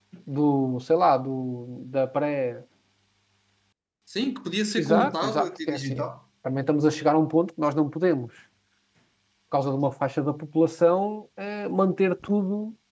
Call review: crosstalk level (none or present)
present